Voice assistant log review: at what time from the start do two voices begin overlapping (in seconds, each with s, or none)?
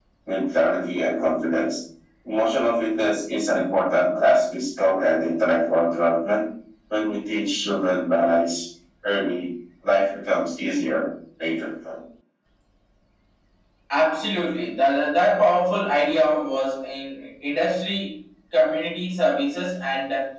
none